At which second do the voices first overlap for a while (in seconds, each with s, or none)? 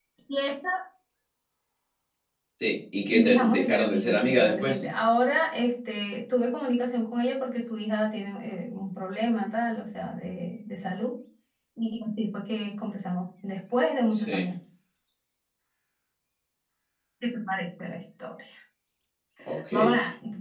3.1 s